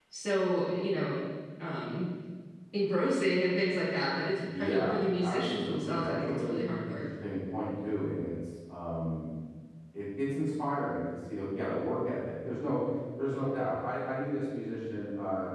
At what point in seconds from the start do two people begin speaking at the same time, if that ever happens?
4 s

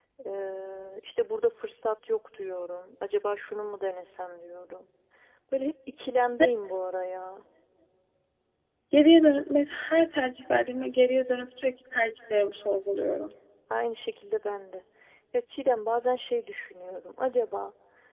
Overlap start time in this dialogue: none

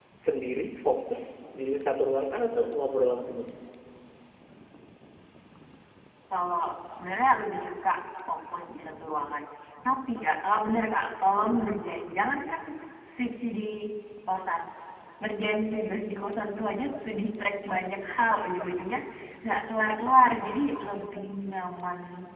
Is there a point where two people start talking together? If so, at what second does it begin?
none

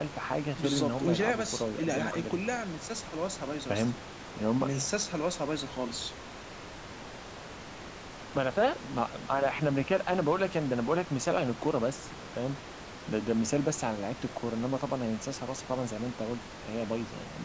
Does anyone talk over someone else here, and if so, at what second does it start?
1 s

